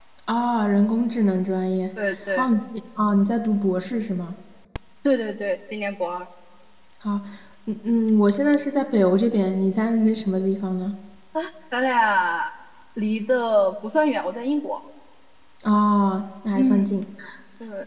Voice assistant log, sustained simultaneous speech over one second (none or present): none